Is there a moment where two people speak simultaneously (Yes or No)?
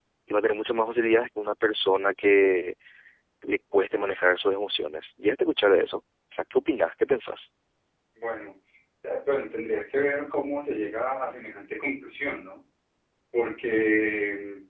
No